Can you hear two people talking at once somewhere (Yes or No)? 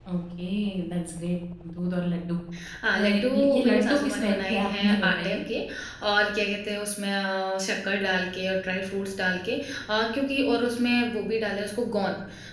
Yes